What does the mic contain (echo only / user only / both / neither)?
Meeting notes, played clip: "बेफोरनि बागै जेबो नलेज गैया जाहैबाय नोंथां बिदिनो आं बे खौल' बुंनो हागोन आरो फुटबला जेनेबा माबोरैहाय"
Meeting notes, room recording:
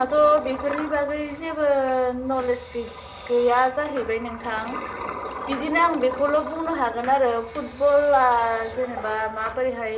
echo only